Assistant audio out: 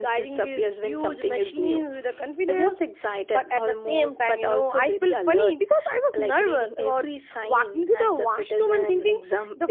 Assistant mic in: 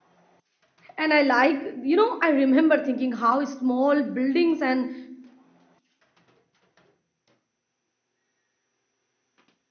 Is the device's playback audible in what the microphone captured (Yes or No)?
No